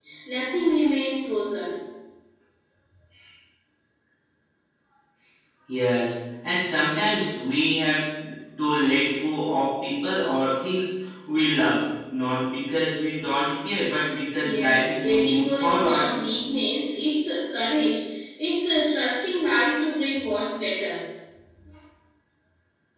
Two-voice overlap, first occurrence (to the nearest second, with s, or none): 14 s